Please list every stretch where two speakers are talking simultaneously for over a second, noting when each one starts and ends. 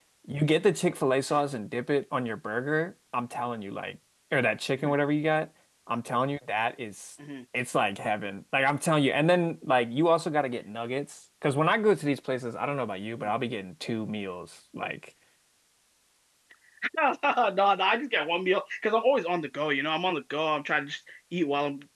none

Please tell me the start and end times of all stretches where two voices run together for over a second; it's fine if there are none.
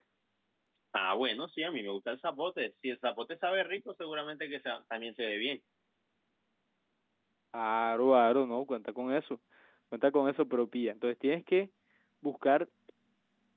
none

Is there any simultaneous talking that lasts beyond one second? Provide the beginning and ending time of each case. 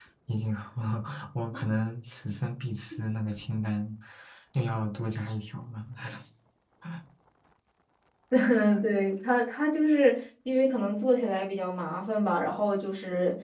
none

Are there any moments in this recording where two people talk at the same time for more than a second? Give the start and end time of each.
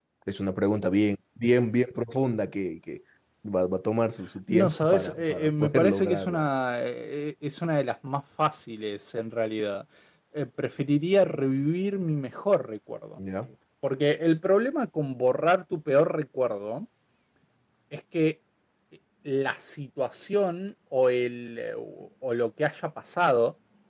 4.5-6.4

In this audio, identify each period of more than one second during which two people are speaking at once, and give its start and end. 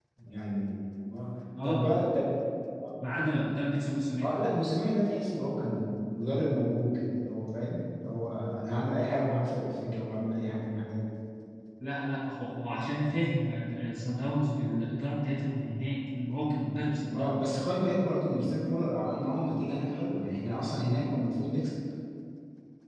none

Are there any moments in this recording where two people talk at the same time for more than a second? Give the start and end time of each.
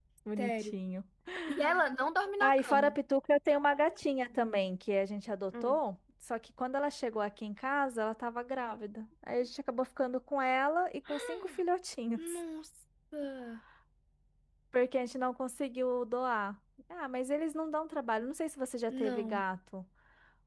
none

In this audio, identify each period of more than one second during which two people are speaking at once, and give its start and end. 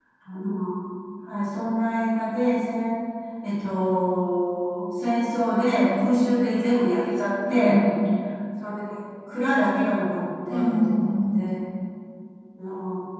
none

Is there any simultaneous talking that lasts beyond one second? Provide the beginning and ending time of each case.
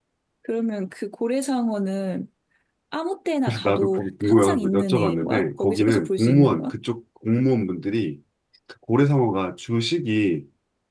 3.5-6.7

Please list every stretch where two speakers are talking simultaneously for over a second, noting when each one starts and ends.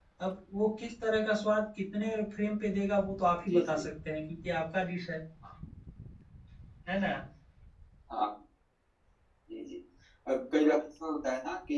none

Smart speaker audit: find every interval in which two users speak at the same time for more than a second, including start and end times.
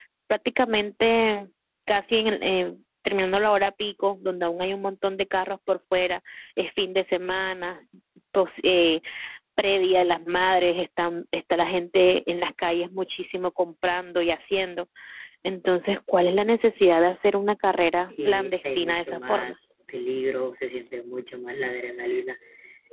18.1-19.5

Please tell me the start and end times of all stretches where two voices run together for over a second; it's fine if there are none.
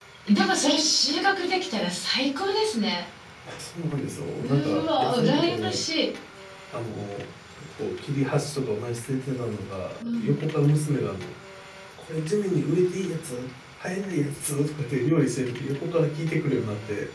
4.4-5.8

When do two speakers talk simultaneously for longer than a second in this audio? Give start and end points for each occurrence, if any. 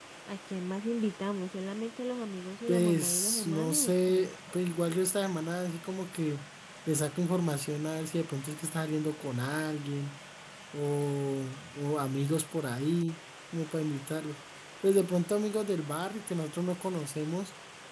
2.7-4.3

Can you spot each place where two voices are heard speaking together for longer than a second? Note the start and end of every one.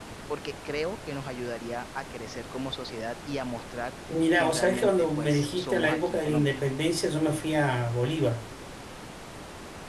4.3-6.6

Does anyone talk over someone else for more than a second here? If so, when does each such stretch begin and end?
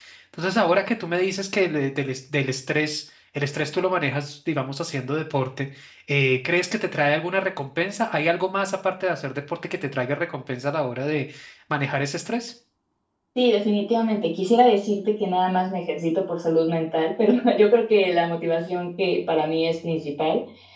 none

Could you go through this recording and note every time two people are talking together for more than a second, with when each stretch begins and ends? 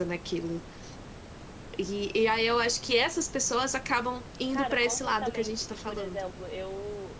4.5-6.3

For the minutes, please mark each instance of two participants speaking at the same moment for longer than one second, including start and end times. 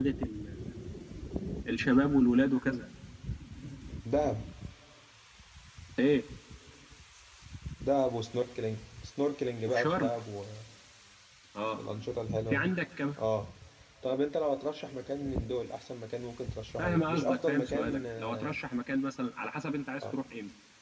16.8-18.6

